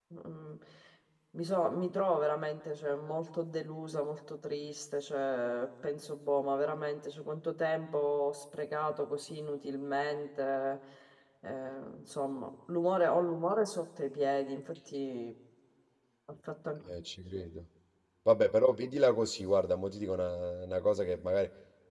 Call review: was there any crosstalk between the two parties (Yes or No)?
No